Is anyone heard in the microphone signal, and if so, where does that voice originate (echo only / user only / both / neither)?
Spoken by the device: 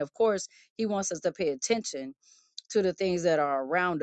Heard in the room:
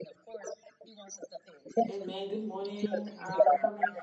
both